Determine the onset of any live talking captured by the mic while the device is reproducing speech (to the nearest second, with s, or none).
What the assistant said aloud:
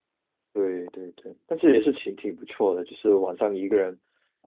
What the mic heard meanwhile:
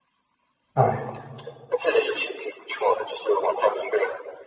1 s